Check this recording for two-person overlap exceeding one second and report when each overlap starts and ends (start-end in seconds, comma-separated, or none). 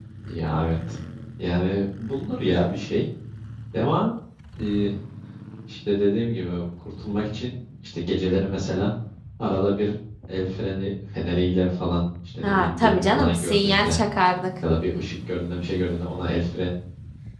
12.4-14.0